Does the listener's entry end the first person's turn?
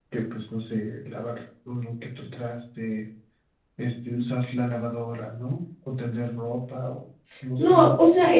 Yes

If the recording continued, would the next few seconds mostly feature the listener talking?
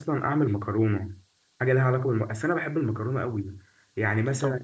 No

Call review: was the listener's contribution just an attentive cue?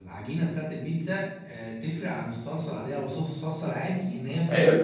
No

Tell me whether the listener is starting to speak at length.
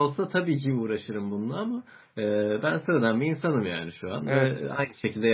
No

